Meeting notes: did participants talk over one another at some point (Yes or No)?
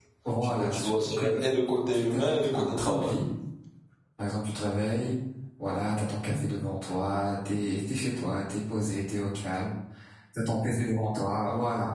Yes